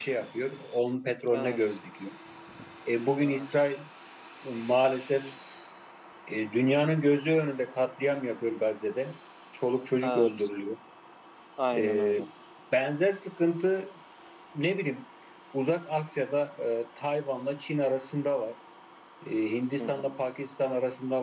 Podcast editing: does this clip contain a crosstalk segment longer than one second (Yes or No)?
No